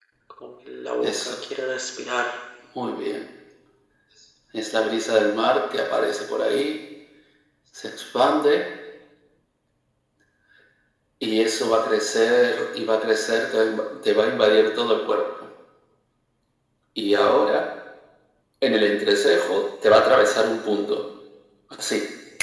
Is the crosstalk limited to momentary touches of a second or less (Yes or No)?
Yes